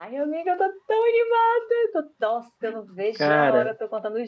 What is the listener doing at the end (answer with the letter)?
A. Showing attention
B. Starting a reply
A